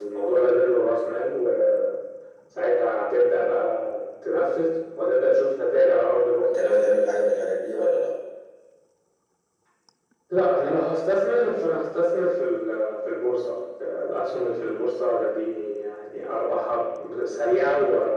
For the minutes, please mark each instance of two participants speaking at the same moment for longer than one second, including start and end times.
none

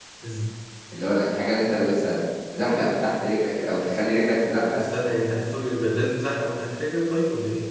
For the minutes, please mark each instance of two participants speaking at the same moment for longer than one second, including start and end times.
none

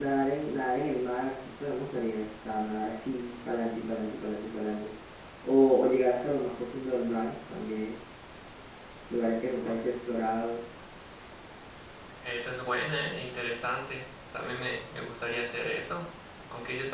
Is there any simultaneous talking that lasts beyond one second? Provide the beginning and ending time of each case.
none

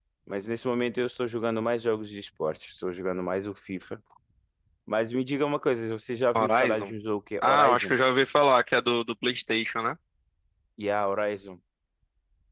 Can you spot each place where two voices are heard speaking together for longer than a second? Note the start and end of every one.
none

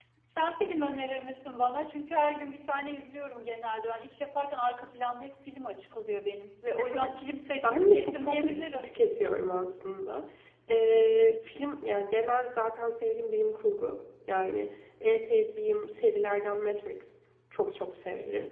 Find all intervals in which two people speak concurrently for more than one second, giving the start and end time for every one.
7.7-8.9

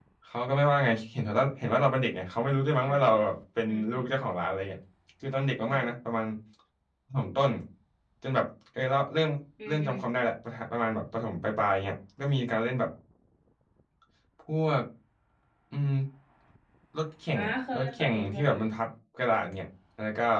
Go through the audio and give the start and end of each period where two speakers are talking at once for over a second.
17.3-18.7

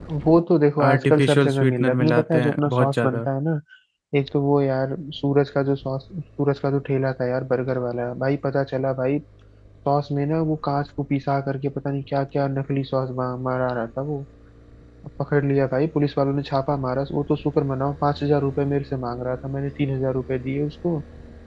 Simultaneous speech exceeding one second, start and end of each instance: 0.9-3.2

